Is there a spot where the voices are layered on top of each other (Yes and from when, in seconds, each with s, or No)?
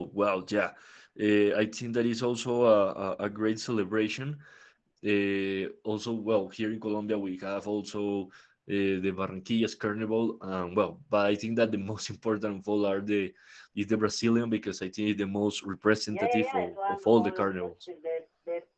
Yes, from 16.1 s